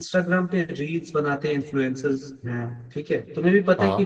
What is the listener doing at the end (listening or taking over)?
listening